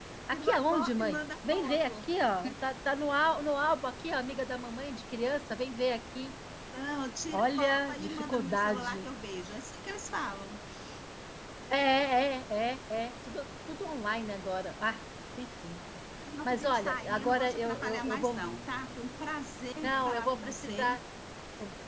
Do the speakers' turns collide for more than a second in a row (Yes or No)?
Yes